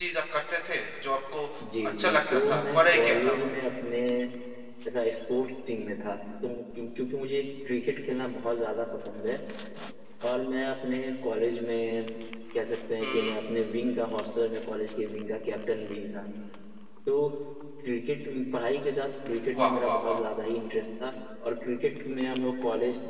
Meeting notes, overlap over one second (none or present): present